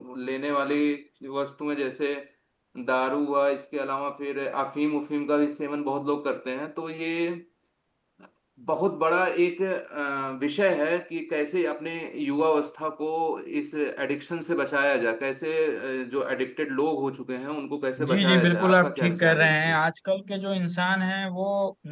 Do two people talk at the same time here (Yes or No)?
Yes